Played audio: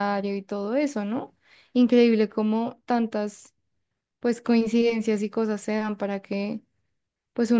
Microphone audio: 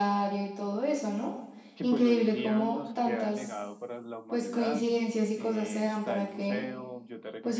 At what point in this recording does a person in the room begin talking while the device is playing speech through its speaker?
1.7 s

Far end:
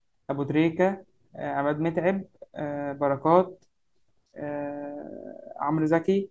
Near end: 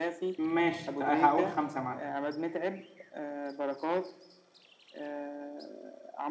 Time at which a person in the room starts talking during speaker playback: 0.4 s

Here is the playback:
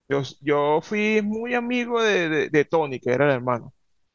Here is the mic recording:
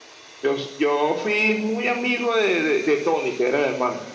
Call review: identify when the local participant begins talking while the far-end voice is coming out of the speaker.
none

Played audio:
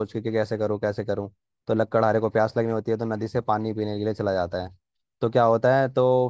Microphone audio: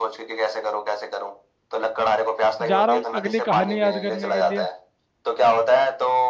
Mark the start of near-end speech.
2.7 s

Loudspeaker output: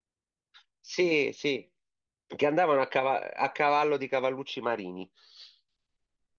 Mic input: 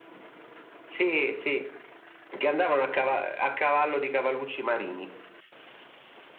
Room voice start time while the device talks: none

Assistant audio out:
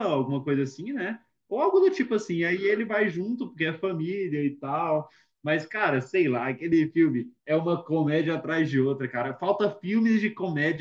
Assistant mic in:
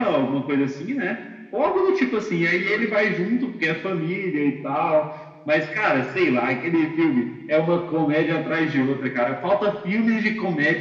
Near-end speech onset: none

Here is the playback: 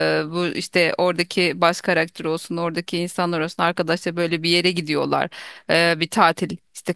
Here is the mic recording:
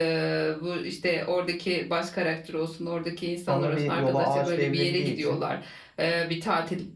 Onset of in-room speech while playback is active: 3.5 s

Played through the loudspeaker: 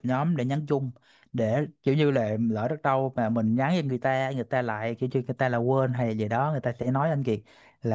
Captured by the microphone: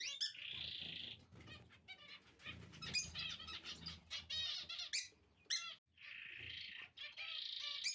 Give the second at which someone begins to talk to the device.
none

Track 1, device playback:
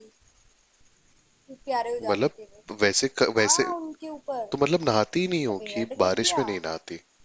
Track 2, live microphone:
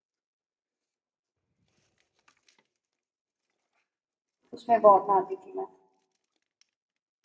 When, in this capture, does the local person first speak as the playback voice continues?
4.5 s

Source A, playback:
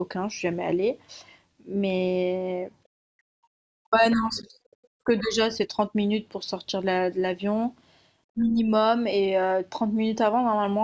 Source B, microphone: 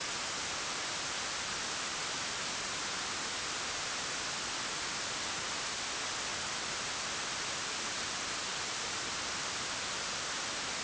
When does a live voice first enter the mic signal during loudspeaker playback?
none

